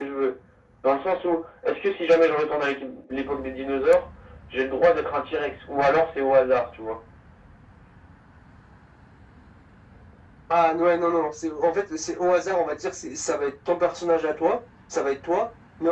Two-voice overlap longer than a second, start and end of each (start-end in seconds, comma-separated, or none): none